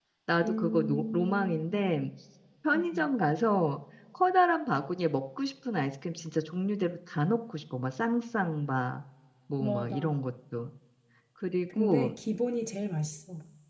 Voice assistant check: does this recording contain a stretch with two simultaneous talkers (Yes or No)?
Yes